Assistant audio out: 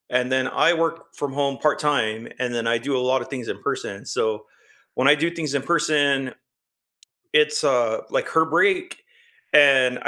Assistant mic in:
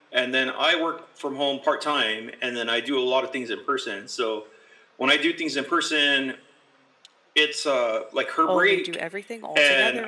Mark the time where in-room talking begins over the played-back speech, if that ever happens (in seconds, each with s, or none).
8.4 s